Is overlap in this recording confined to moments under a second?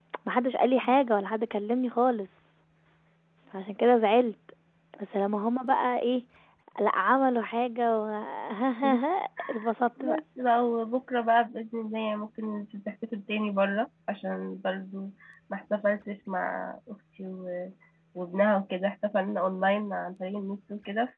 Yes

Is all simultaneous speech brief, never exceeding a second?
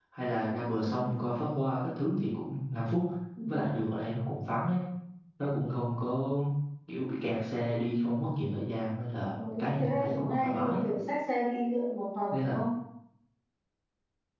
No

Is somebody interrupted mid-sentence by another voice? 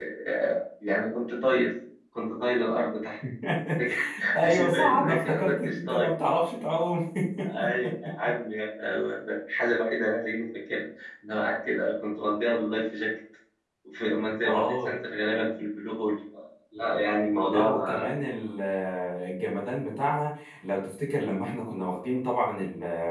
Yes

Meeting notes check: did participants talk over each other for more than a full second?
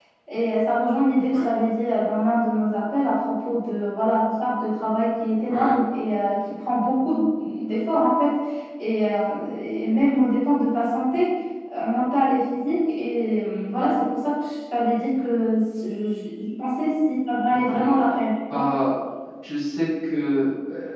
No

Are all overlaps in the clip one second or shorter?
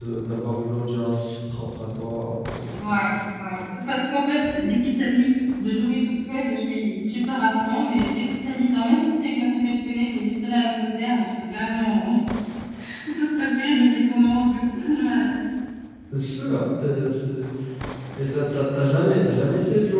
Yes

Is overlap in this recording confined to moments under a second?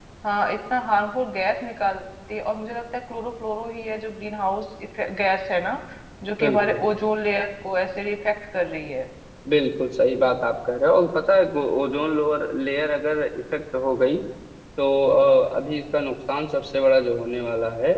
Yes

